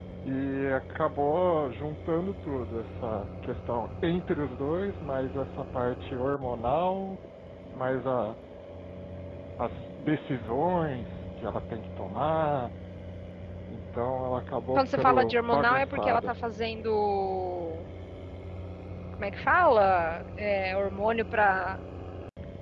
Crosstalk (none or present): present